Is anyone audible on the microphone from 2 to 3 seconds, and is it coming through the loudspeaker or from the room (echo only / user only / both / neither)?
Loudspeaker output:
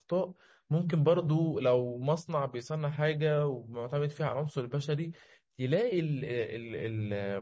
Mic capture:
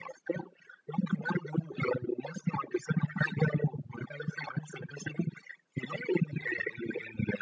echo only